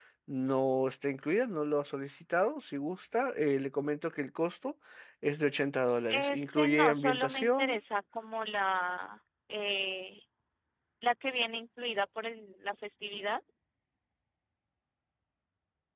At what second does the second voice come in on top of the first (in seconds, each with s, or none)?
6.1 s